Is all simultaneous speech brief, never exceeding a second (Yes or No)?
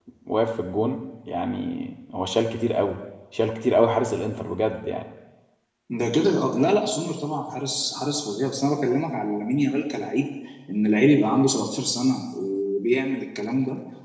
Yes